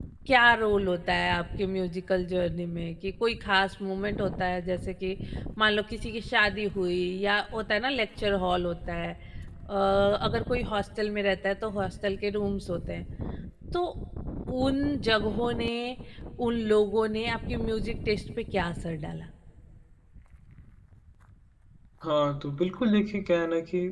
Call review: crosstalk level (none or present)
none